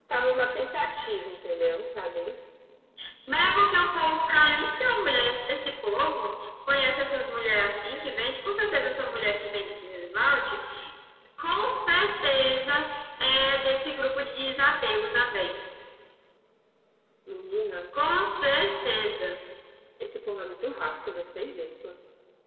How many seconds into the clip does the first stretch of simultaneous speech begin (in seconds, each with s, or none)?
none